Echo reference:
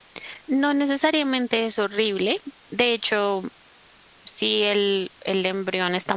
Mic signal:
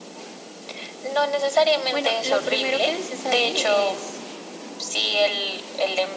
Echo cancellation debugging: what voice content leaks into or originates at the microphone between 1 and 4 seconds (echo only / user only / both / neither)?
both